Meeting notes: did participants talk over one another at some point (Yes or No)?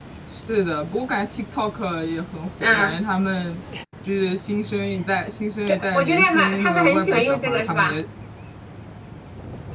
Yes